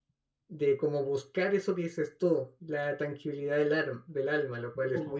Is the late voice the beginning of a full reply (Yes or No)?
Yes